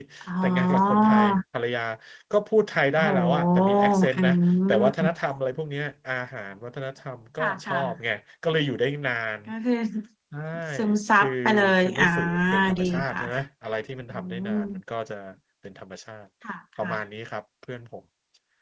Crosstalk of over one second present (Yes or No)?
Yes